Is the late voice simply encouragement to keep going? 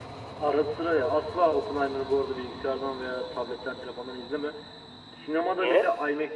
Yes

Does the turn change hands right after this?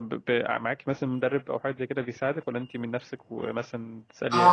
Yes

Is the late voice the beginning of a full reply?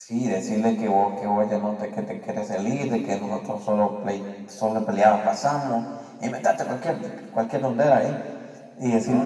No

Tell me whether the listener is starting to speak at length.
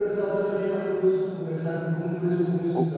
Yes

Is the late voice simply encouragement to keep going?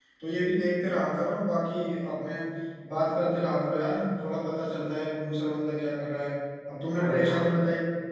Yes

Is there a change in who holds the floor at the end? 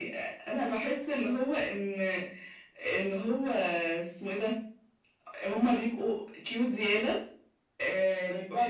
No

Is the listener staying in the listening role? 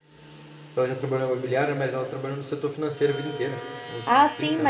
No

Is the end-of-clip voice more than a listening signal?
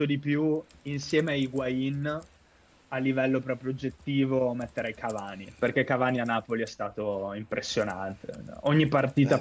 No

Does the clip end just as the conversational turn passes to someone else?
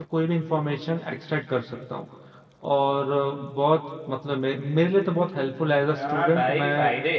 Yes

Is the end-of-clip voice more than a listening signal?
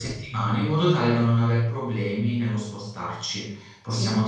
No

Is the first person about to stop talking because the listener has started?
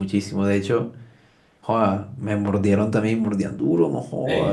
No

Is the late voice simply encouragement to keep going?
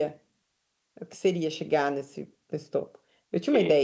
Yes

